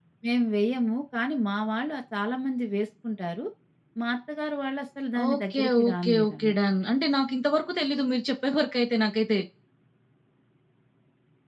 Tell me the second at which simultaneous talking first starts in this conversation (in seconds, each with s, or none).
5.2 s